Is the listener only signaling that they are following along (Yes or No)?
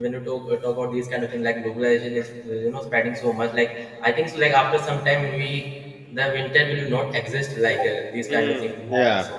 No